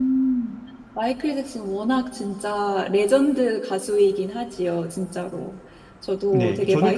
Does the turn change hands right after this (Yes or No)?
Yes